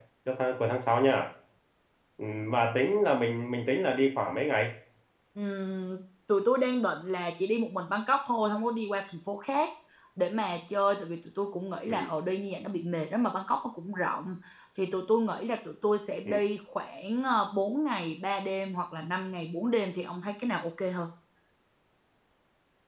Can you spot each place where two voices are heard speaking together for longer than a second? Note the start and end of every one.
none

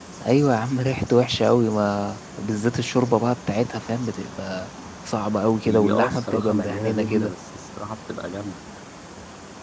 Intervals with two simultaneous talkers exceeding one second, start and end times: 5.7-7.3

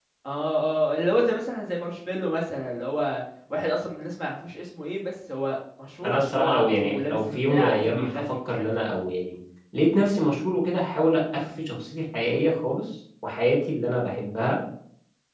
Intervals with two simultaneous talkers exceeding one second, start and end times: 6.0-8.9

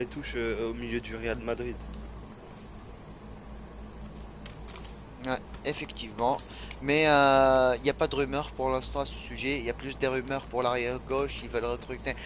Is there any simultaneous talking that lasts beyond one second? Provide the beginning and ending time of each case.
none

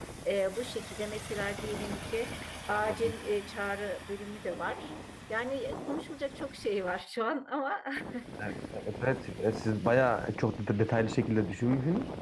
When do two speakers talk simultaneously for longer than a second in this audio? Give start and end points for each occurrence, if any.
none

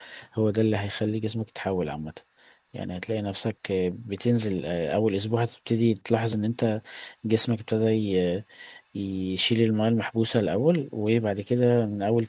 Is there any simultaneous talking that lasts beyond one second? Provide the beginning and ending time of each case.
none

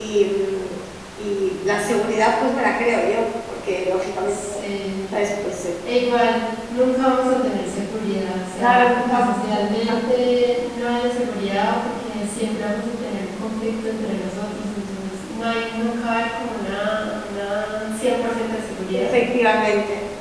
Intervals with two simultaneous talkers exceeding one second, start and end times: 8.6-10.0

